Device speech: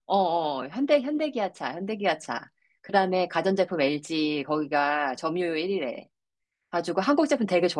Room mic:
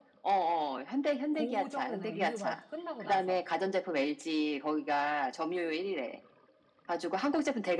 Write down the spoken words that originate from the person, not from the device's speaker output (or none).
그 정도 되는 거, 6.25 바로 끝나고 나서.